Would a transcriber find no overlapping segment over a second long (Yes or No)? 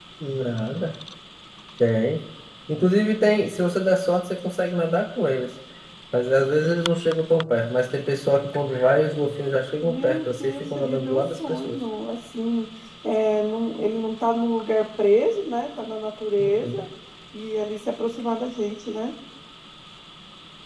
No